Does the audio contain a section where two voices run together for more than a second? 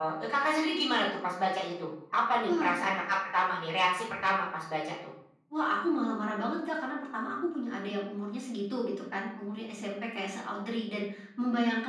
No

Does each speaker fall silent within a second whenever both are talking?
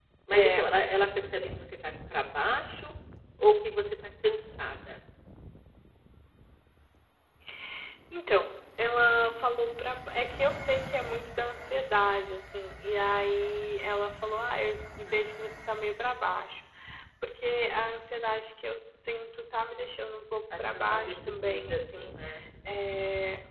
No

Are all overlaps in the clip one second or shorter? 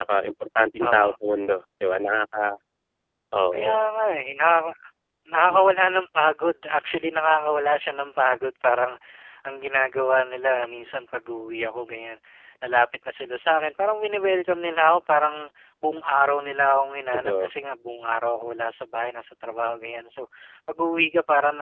Yes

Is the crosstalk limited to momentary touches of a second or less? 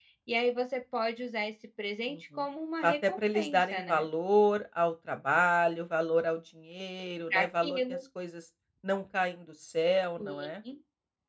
No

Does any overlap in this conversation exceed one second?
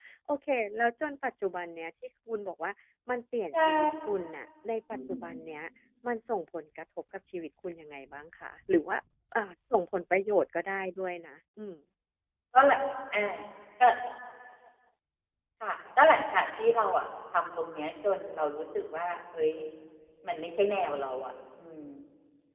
No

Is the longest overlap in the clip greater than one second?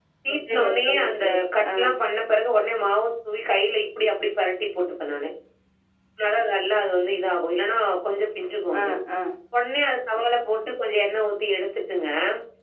Yes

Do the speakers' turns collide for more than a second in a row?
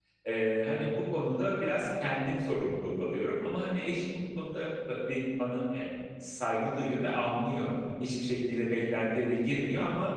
No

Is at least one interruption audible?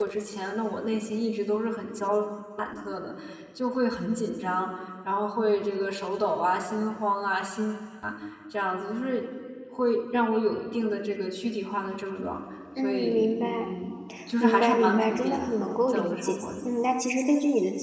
Yes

